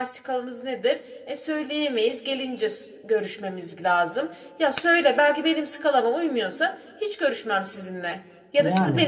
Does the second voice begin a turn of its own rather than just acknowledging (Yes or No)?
No